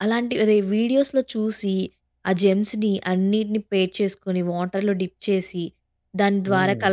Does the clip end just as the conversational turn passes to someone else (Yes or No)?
No